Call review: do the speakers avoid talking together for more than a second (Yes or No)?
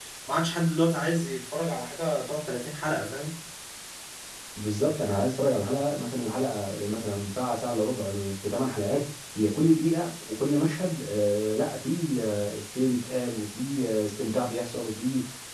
Yes